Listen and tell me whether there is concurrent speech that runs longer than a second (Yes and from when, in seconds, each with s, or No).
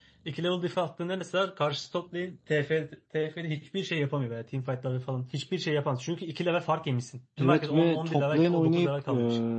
Yes, from 7.4 s